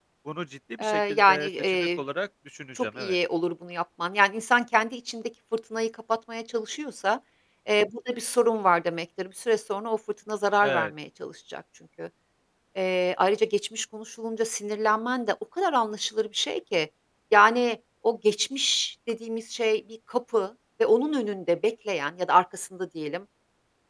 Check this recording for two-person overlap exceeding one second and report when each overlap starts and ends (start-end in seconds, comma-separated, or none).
0.8-2.0